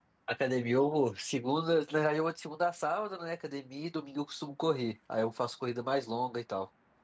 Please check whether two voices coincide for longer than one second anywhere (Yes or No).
No